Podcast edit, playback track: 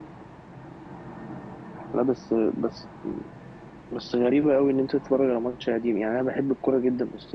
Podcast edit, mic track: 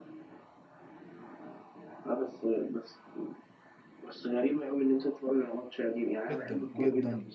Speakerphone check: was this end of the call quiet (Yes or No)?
No